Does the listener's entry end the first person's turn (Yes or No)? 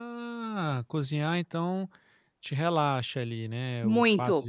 No